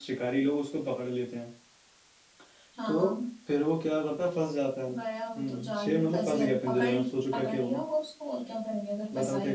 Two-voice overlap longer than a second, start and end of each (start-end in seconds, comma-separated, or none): 5.4-6.9